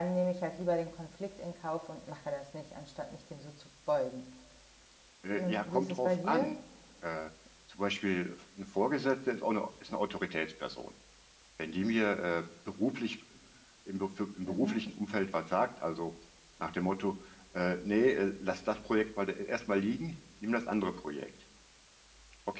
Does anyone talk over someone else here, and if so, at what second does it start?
5 s

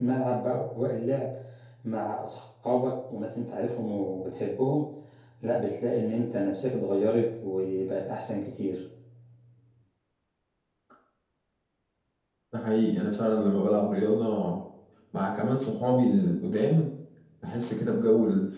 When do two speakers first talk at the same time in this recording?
none

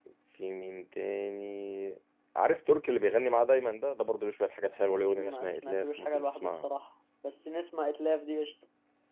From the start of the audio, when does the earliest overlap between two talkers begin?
5 s

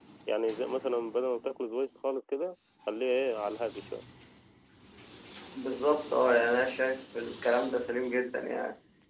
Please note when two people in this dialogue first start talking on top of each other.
none

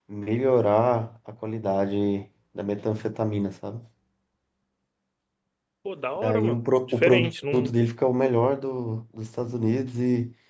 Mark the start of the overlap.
6 s

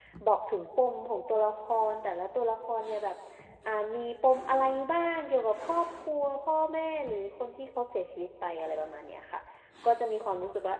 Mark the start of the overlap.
none

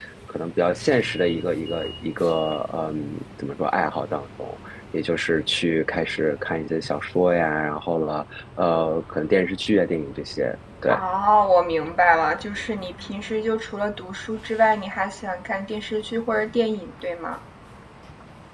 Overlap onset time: none

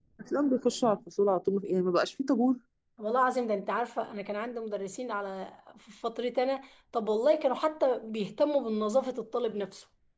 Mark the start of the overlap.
none

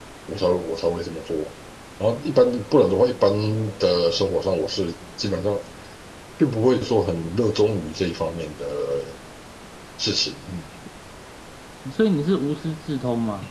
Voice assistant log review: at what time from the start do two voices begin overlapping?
none

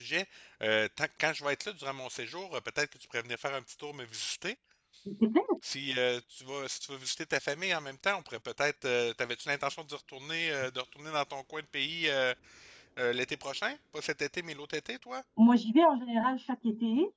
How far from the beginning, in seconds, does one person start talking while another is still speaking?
none

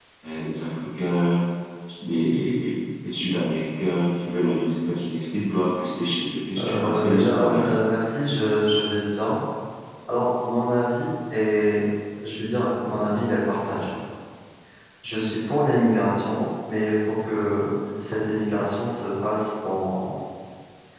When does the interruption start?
7 s

